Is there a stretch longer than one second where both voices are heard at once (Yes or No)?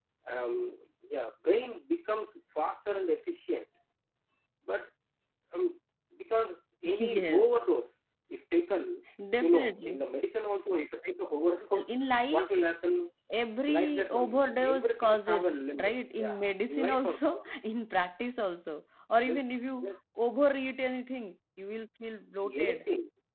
Yes